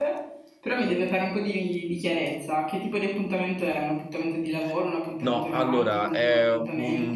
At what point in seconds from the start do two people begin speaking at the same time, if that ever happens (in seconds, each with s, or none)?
5.2 s